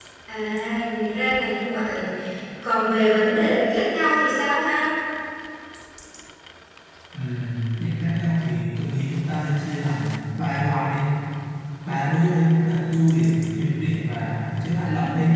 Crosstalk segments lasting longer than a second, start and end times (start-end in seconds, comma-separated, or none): none